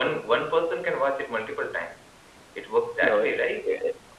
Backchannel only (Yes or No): No